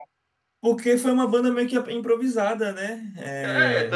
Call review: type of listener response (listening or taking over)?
taking over